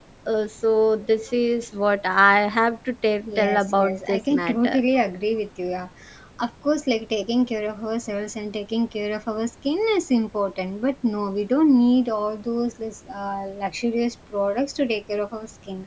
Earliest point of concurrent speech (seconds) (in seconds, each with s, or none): 3.2 s